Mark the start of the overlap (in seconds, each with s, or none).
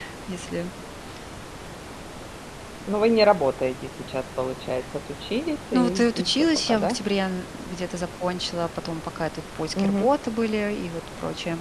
5.7 s